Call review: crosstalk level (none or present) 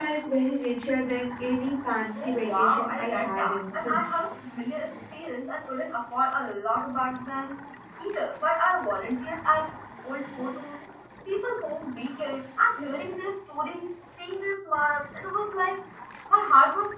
present